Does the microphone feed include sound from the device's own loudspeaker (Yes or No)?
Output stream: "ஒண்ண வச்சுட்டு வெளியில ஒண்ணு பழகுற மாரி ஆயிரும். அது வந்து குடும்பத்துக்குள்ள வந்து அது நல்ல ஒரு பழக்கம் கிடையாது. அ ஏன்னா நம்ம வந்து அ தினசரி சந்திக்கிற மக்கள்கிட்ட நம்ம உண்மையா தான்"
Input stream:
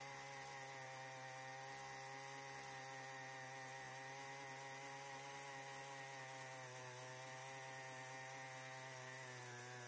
No